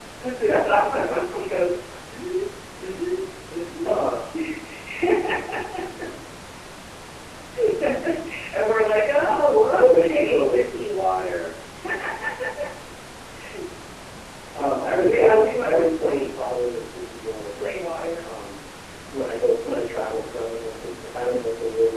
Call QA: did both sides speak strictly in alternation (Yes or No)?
No